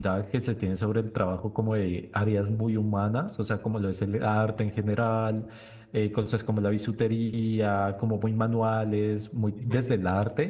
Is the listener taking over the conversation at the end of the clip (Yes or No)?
No